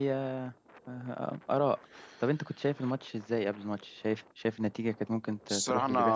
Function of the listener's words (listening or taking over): taking over